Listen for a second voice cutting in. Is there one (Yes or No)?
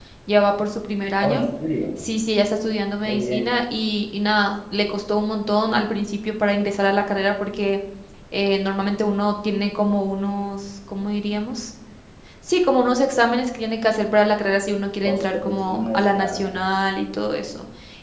Yes